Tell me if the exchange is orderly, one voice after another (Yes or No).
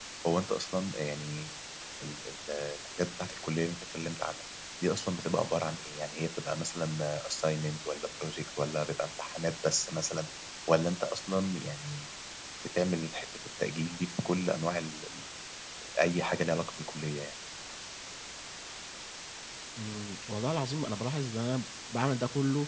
Yes